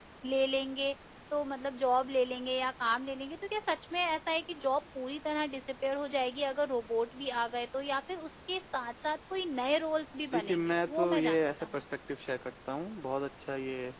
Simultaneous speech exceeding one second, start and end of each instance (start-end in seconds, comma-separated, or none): 10.3-11.7